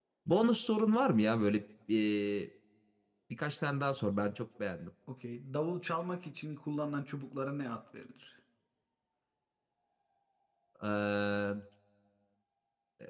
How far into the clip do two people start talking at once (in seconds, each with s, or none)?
none